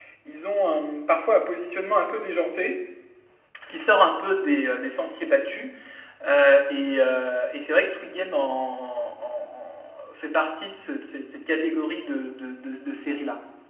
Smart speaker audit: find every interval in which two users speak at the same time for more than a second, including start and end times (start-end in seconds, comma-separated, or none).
none